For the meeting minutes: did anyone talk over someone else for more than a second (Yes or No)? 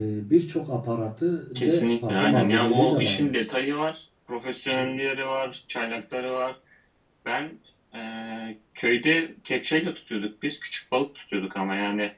Yes